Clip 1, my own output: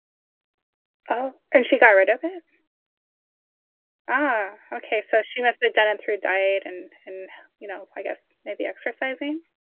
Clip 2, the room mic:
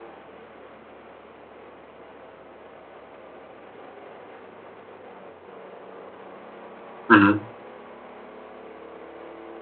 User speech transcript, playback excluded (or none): Mhm.